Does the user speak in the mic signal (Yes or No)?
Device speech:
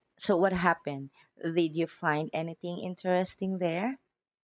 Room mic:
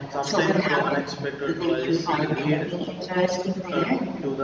Yes